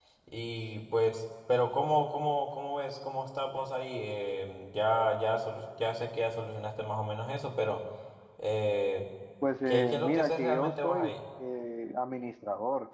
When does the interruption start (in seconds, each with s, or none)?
9.7 s